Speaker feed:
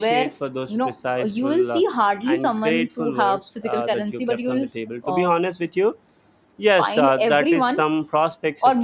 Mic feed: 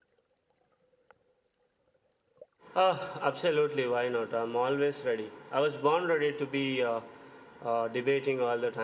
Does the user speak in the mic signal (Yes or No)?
Yes